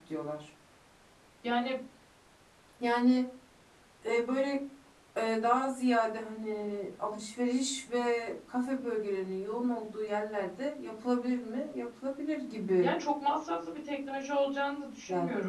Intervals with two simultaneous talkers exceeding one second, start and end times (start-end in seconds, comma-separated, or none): none